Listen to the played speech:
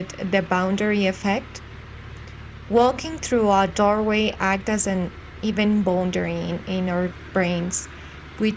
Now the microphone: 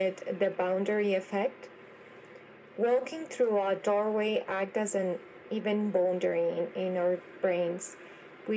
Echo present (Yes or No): Yes